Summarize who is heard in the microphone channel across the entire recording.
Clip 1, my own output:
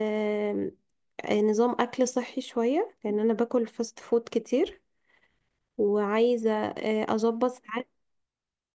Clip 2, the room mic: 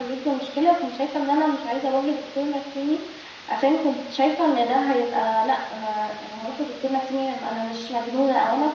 user only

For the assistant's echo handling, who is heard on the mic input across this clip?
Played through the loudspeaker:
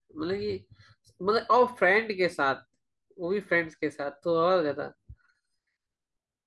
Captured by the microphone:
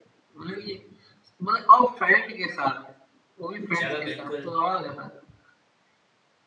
both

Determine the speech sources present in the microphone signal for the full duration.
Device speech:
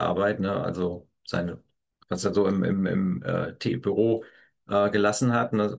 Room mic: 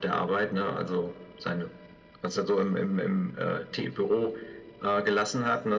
echo only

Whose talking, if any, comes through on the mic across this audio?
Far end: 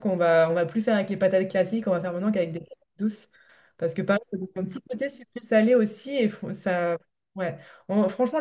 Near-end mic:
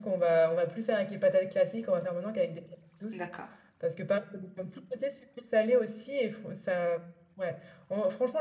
both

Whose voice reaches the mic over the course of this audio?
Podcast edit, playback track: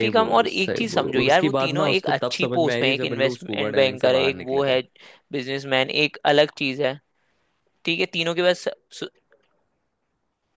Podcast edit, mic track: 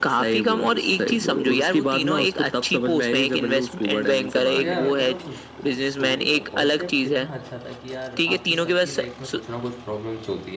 both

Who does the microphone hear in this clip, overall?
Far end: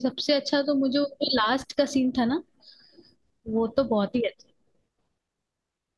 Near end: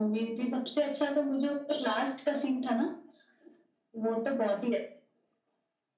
echo only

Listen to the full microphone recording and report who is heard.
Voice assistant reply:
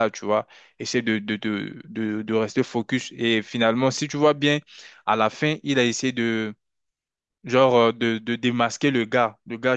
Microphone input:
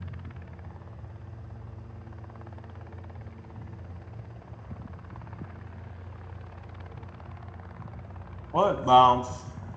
user only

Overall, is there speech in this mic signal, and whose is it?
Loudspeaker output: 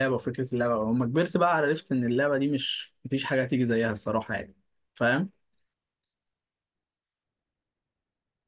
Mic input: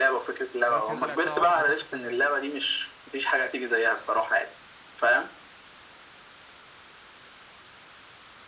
both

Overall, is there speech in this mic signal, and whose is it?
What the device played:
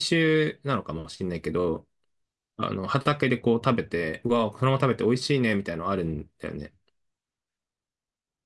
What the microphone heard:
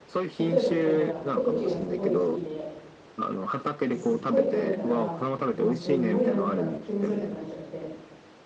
both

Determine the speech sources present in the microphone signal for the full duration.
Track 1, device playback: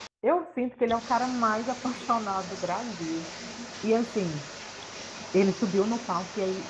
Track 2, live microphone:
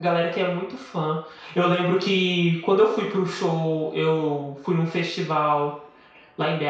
user only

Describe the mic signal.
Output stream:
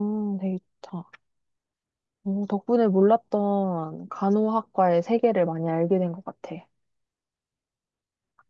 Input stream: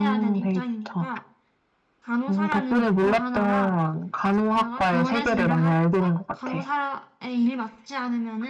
both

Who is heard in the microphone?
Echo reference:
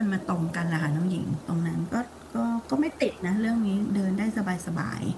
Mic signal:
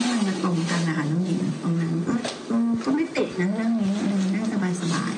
echo only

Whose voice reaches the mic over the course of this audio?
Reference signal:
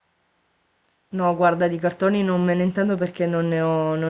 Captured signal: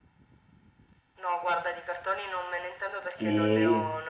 both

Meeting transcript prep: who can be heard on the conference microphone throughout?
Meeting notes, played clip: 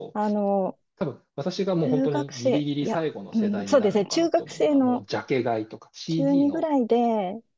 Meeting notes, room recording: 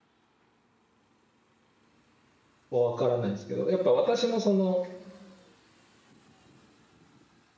user only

